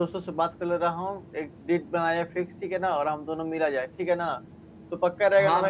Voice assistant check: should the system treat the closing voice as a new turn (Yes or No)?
Yes